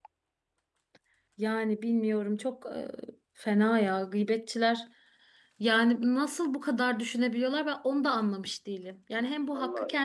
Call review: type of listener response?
listening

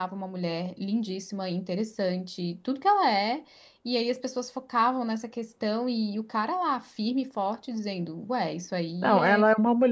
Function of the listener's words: taking over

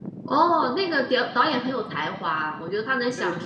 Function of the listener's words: listening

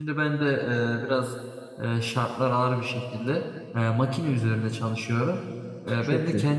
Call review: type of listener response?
listening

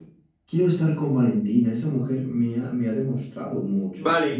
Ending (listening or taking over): taking over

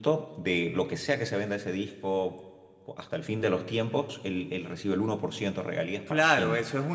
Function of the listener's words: taking over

